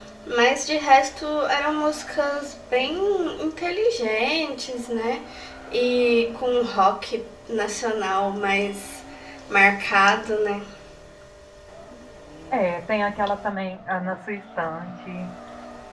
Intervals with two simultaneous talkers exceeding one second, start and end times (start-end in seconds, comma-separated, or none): none